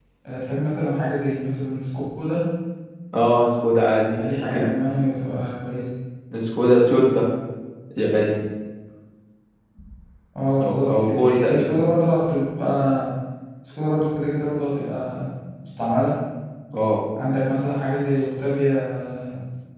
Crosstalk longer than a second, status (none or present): present